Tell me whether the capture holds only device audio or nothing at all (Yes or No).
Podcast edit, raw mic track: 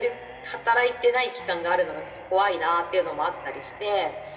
Yes